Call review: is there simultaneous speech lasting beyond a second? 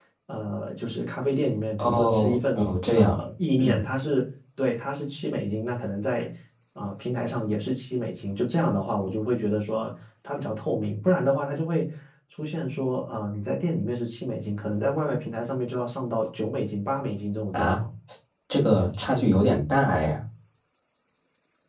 Yes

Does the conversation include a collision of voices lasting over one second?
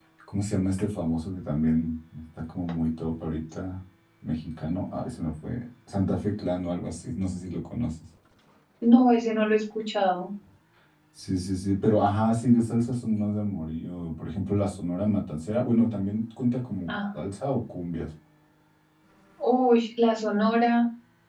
No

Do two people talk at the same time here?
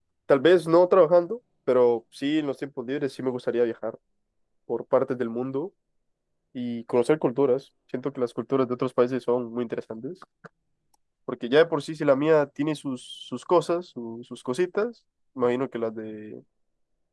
No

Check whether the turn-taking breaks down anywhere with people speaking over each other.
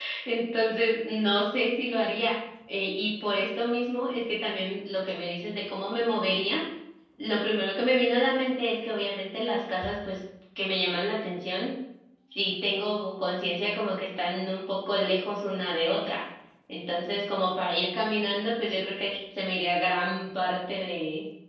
No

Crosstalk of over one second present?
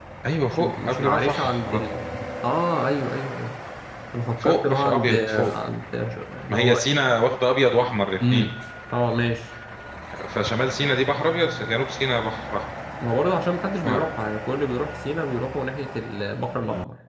Yes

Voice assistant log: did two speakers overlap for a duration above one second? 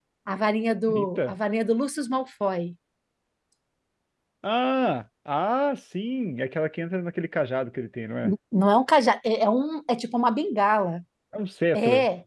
No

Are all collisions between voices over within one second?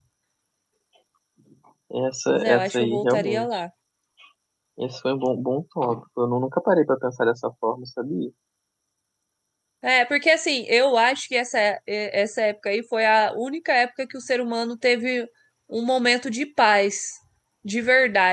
No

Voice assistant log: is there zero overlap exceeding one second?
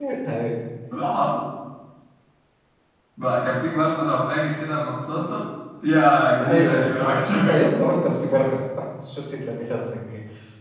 No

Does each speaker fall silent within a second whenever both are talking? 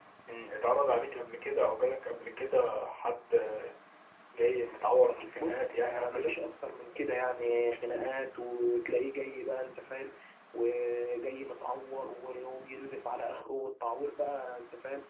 No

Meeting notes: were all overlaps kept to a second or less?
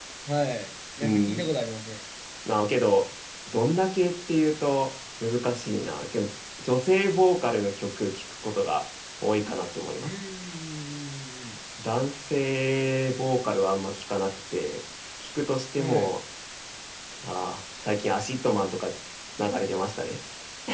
Yes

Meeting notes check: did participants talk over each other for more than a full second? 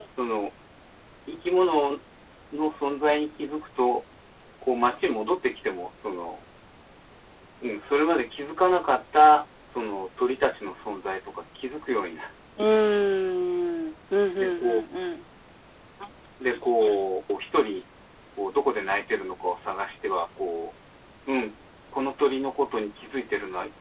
No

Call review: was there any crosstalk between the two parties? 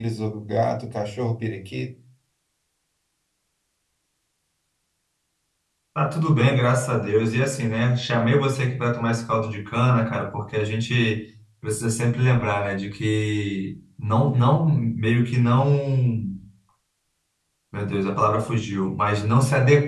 No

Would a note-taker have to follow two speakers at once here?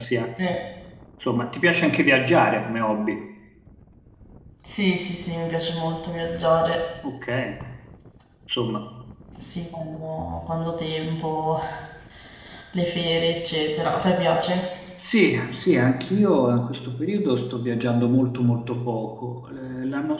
No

